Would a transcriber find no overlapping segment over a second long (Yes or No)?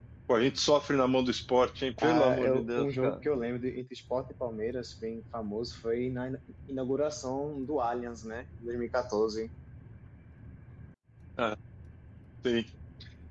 No